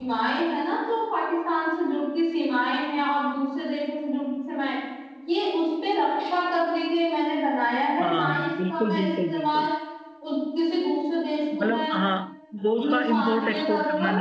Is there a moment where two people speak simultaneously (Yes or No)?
Yes